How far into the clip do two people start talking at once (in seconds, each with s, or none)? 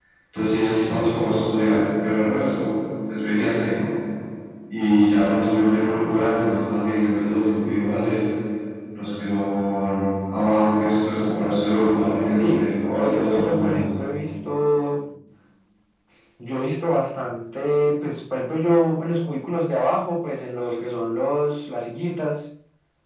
12.3 s